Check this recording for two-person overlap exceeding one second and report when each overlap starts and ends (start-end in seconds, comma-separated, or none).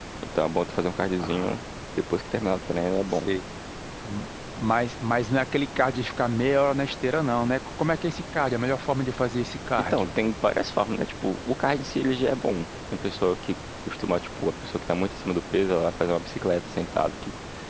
none